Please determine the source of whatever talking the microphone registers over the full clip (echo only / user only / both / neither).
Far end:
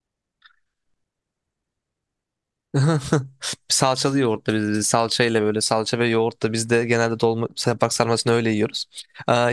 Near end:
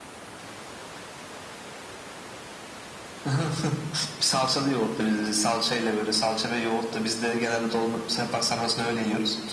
echo only